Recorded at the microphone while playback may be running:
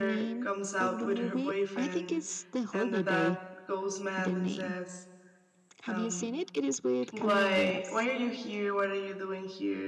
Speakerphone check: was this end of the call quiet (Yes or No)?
No